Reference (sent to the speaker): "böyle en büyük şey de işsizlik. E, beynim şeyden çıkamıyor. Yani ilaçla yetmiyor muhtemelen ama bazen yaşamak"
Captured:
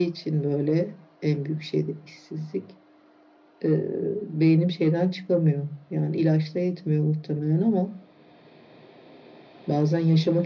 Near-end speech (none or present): none